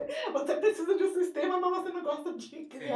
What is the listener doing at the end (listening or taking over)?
taking over